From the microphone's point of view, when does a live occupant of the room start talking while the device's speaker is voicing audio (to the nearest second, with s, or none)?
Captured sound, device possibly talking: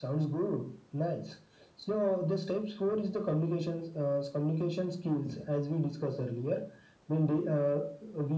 none